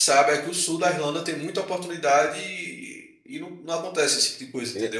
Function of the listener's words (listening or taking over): taking over